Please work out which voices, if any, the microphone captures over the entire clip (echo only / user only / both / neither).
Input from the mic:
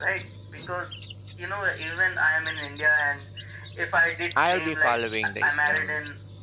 both